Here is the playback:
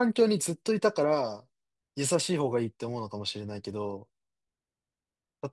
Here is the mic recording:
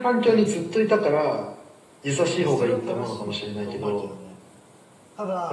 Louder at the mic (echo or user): echo